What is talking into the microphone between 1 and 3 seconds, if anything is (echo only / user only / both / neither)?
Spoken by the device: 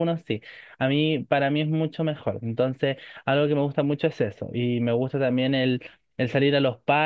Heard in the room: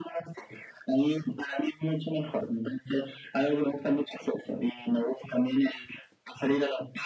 echo only